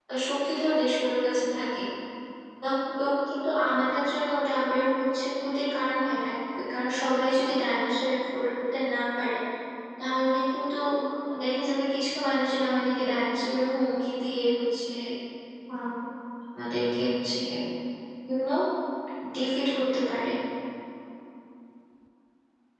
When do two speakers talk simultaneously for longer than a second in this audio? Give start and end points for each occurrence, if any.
none

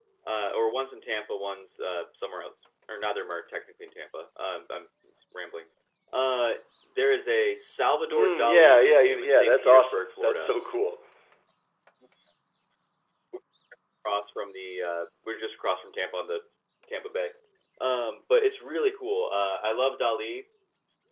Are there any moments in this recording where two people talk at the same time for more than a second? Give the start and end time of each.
8.1-10.5

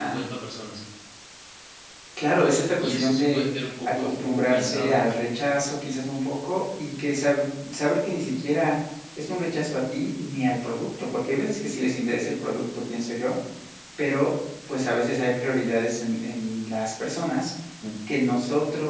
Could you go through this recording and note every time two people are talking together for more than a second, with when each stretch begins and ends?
2.8-4.9

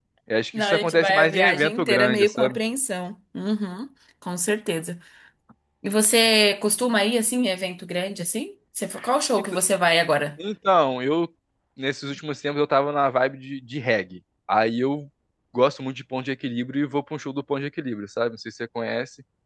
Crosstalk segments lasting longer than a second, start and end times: 0.6-2.6

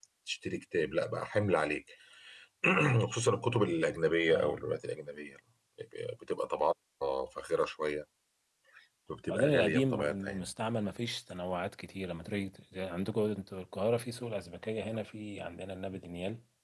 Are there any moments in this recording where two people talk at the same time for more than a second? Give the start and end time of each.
9.3-10.5

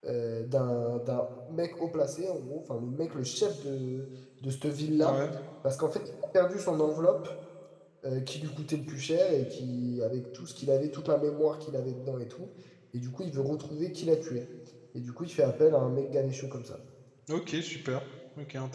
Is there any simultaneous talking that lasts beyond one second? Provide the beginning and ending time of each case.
none

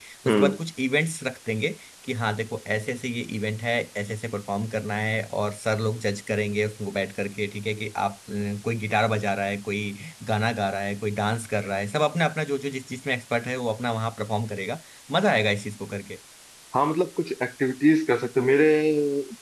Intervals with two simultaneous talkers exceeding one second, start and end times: none

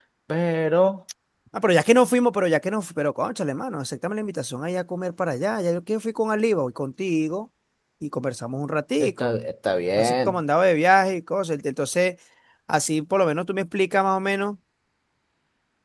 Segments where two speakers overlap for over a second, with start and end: none

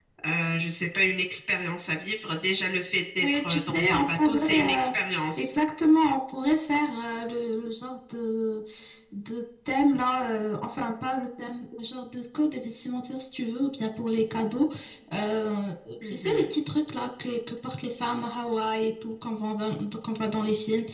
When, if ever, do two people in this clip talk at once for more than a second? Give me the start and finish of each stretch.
3.2-4.9

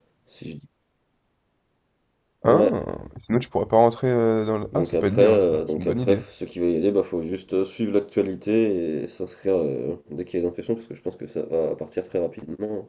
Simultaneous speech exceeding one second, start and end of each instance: 4.7-6.2

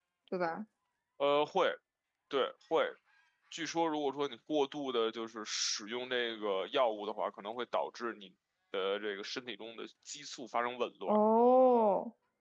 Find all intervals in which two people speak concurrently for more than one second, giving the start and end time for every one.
none

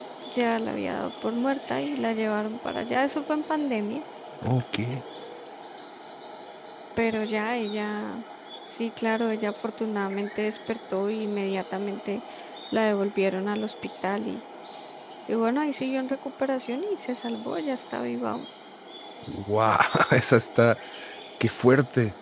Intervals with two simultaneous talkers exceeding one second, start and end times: none

